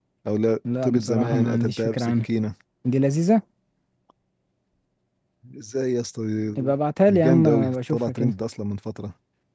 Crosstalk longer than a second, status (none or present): present